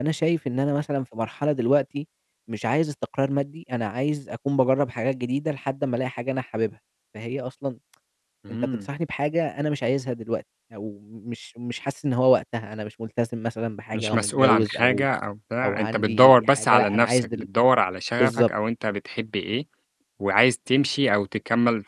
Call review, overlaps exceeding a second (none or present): present